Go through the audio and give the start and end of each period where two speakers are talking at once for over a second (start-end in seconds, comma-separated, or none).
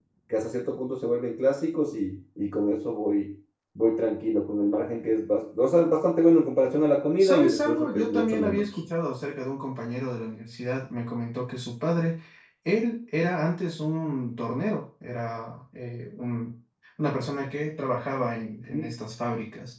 7.2-8.6